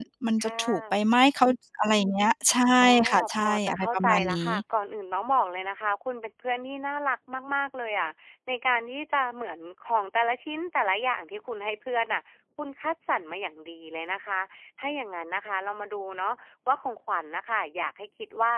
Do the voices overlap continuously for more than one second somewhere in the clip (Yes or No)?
Yes